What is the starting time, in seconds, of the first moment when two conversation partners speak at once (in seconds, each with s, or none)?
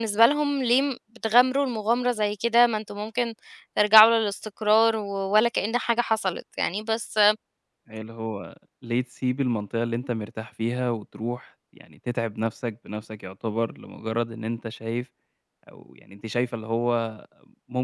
none